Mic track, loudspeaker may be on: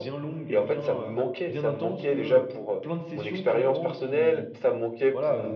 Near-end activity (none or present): present